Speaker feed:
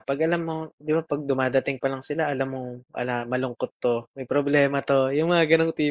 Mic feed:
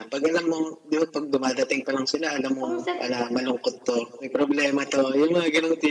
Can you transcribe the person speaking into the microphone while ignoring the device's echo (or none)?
pang self-help